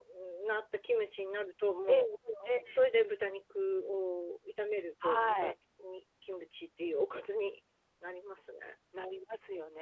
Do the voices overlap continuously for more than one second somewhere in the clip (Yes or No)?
No